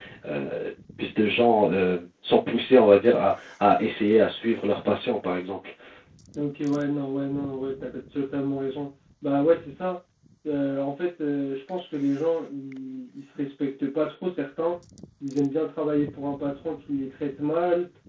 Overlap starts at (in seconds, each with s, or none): none